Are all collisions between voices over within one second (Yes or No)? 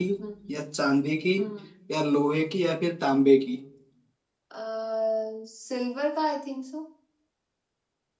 Yes